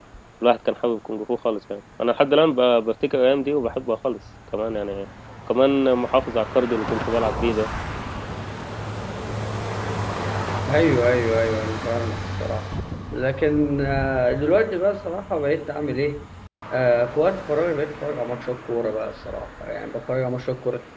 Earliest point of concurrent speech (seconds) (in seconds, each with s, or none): none